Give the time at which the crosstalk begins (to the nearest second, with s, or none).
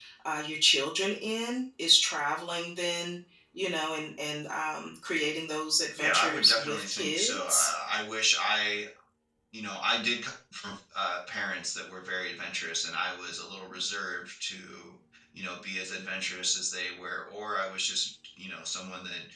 6 s